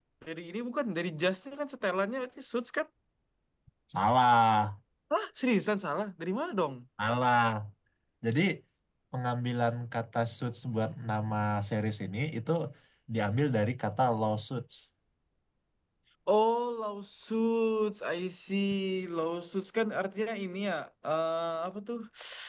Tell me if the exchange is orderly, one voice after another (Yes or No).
Yes